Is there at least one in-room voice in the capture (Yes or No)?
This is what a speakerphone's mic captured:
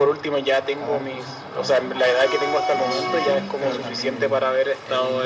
Yes